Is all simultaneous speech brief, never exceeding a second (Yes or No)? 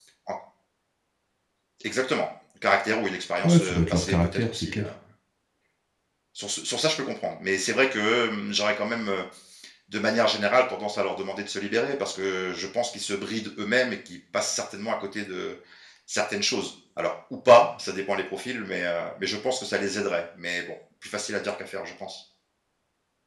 No